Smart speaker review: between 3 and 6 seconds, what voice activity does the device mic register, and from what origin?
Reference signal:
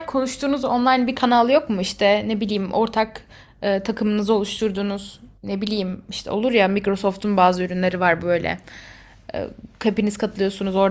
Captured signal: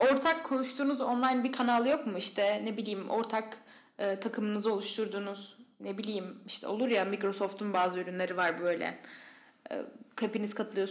echo only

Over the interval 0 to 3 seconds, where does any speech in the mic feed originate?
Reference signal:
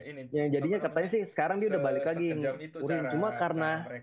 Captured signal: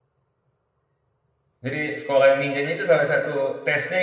user only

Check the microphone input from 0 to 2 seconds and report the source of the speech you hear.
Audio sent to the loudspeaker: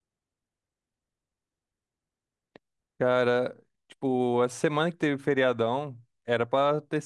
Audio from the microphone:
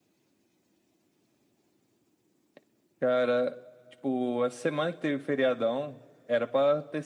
neither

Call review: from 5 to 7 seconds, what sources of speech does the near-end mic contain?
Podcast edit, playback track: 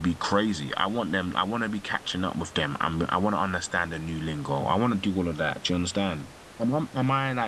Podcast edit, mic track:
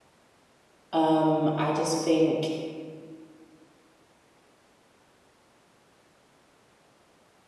neither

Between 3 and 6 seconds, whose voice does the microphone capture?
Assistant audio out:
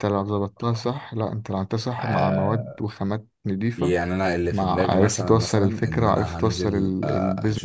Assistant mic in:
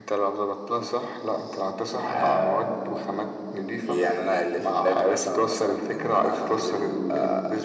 echo only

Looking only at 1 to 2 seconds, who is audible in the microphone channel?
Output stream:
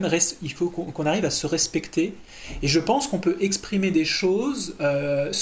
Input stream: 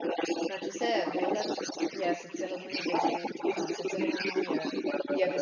both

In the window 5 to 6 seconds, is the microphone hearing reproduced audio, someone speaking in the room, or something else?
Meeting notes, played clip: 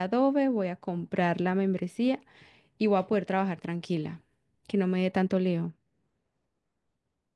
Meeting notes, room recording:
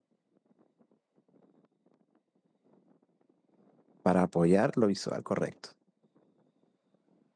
user only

